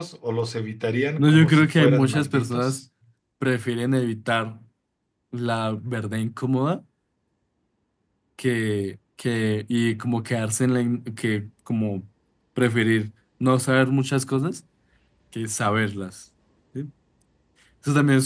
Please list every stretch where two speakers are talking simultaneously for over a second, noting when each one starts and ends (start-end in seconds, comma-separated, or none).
1.2-2.8